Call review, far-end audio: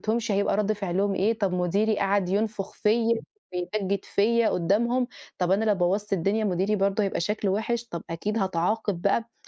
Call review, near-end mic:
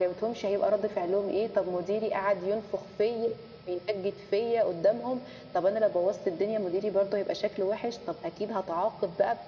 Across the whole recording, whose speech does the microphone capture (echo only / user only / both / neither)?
echo only